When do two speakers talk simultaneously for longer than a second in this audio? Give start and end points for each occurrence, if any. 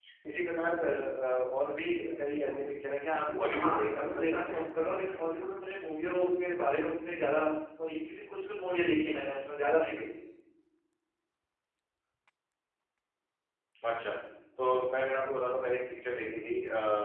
3.1-4.6

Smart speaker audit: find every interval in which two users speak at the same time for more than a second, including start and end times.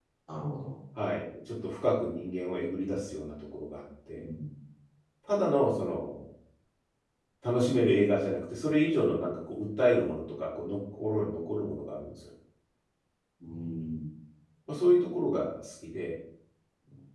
none

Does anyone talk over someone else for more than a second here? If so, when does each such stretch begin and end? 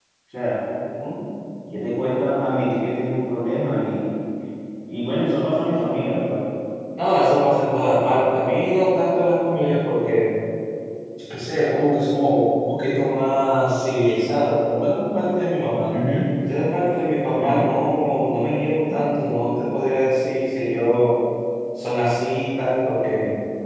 none

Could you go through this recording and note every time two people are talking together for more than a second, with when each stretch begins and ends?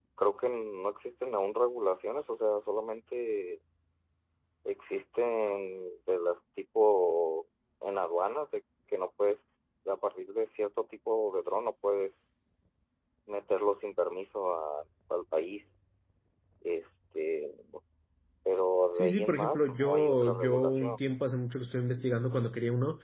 18.9-21.0

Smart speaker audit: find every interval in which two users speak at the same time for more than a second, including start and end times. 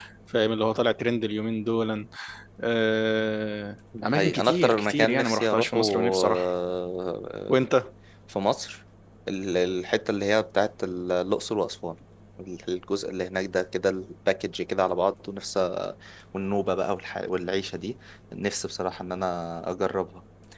4.0-6.5

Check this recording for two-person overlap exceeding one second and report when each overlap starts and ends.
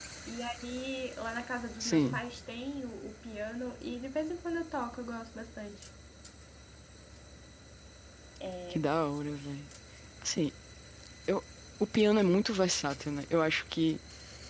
none

